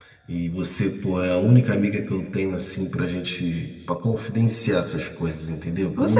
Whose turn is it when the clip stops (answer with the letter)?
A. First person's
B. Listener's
B